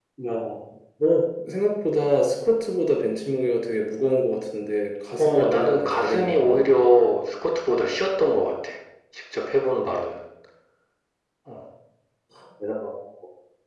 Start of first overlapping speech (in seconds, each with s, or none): 5.2 s